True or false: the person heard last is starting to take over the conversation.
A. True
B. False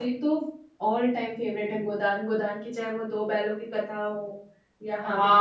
A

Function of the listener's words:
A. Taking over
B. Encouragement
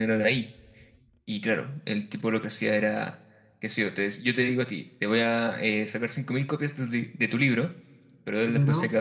B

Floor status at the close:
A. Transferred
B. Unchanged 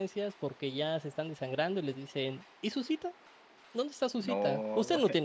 B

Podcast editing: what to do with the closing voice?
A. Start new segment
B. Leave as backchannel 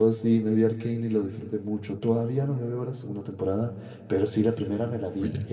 B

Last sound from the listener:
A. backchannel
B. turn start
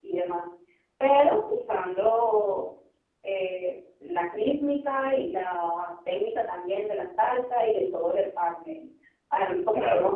A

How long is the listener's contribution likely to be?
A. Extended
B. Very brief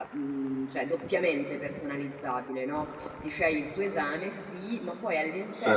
B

